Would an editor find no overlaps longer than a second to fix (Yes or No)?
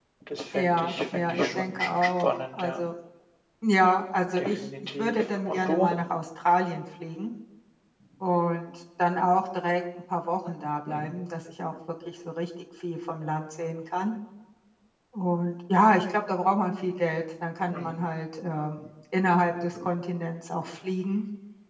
No